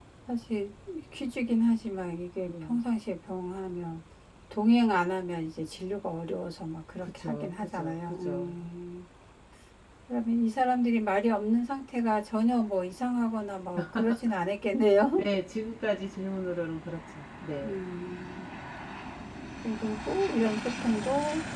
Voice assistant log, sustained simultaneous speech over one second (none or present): present